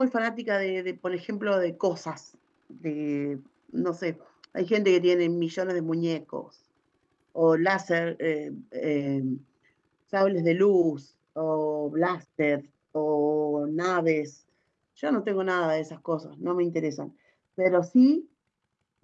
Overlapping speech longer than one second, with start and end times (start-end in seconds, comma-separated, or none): none